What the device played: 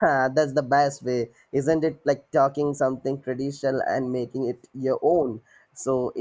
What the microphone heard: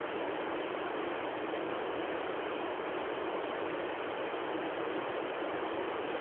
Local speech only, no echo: none

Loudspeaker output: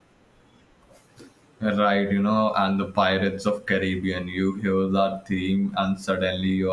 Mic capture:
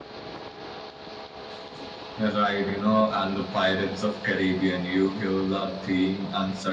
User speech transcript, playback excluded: none

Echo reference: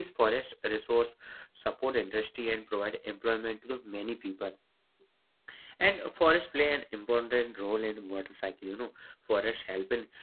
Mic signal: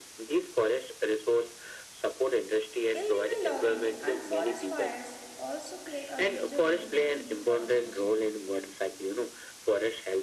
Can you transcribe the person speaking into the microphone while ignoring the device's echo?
Illegal logging and forest fires also play a major role in deforestation.

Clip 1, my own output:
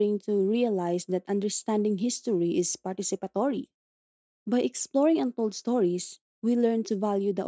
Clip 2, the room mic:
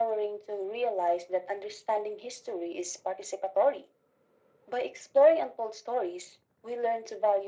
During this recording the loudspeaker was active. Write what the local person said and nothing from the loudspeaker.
none

